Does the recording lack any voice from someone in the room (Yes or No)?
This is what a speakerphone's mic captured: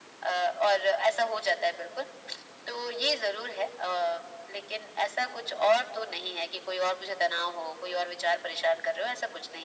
Yes